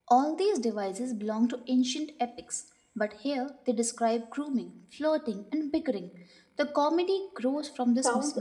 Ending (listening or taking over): taking over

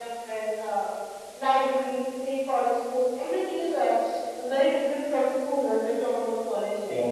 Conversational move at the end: taking over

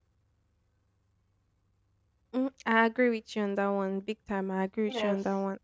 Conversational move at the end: listening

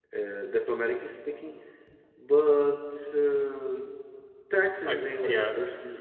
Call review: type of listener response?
listening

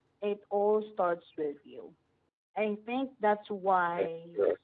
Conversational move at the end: listening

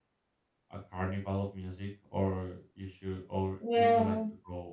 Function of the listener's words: listening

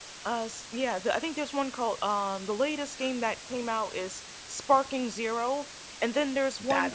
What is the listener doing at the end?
listening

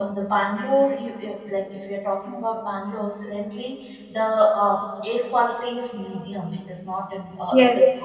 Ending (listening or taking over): listening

